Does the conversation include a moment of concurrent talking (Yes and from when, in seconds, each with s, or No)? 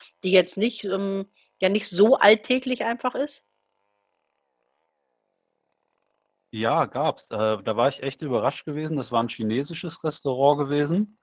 No